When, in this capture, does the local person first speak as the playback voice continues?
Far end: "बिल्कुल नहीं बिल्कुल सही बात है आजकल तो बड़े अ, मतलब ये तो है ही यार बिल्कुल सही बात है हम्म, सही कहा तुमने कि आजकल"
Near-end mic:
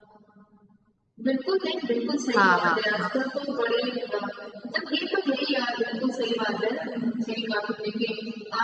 2 s

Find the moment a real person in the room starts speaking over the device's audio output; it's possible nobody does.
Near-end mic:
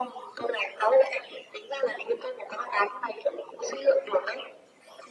none

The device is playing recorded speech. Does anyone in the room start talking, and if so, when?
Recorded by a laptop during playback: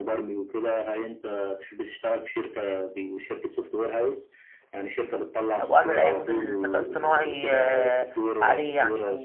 6 s

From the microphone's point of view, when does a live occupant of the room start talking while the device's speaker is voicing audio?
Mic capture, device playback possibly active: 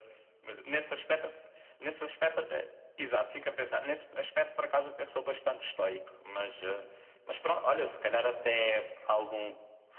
none

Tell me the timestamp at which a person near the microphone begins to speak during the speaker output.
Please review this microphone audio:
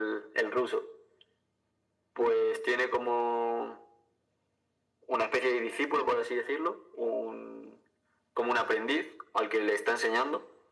none

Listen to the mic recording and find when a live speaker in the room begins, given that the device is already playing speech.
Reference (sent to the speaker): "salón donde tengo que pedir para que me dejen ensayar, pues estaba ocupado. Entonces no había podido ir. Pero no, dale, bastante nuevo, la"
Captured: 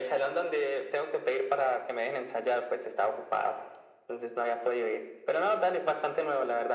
none

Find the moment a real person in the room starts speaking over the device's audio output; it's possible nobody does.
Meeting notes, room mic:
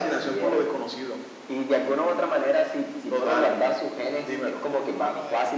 5 s

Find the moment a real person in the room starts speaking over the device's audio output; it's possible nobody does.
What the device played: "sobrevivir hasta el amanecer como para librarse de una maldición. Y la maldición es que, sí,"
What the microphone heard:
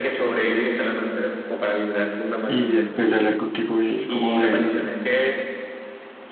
2 s

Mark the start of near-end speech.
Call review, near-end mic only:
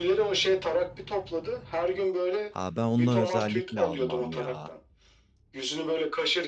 2 s

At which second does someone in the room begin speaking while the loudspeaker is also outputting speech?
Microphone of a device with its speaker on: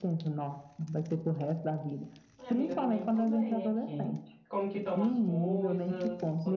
2 s

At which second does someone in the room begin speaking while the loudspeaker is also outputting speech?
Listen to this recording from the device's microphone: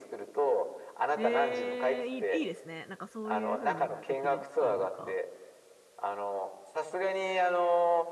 1 s

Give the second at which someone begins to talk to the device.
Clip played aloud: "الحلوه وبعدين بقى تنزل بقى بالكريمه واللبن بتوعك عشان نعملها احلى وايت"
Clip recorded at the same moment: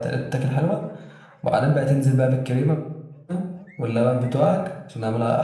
none

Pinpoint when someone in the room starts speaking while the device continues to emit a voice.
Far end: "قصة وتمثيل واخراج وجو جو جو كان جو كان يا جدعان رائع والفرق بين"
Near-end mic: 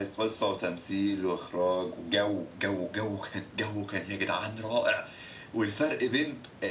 none

